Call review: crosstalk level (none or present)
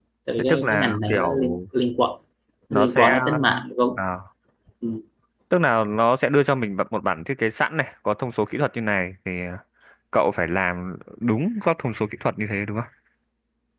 present